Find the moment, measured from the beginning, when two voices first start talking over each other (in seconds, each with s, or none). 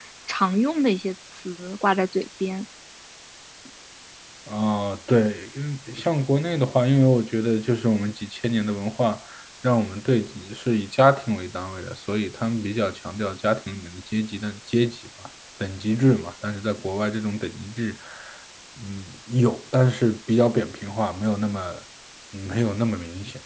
none